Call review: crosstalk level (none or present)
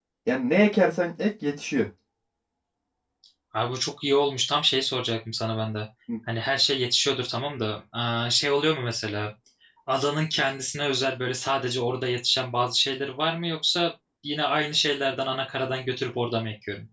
none